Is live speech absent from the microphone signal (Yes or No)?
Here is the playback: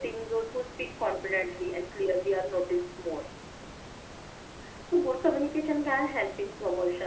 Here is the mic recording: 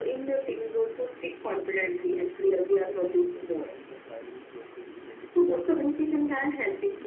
No